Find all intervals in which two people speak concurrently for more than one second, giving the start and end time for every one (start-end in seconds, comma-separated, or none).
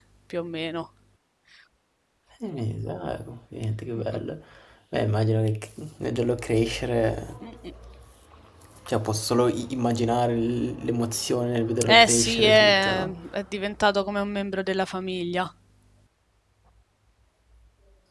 11.8-13.2